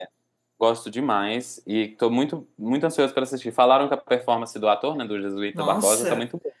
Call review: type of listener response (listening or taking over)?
taking over